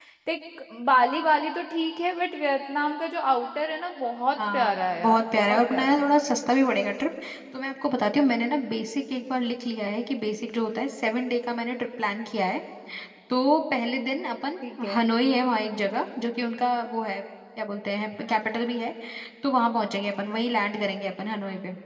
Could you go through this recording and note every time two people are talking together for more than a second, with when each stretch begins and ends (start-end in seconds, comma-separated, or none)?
4.5-6.1